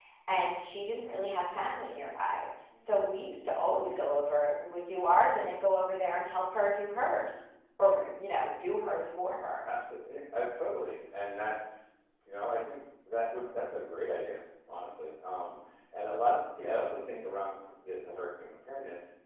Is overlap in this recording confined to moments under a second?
Yes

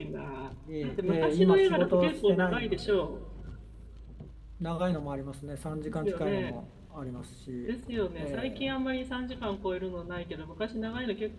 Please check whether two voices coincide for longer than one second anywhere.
Yes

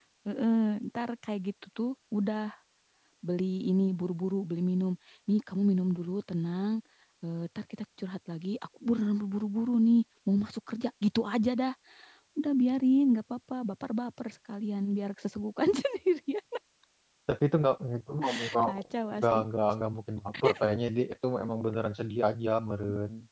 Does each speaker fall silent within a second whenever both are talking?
Yes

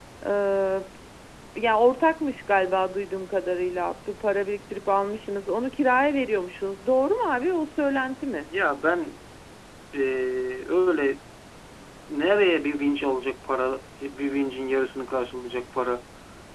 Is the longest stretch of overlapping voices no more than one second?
Yes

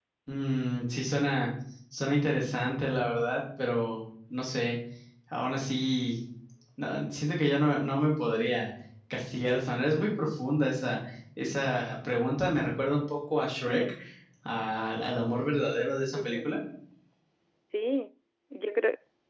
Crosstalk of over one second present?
No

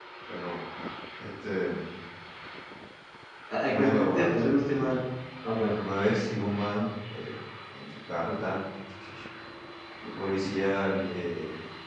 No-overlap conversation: No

